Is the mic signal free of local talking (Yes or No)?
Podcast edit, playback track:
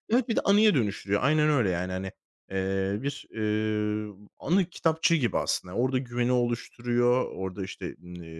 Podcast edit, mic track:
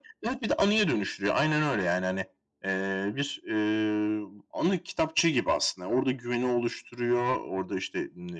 Yes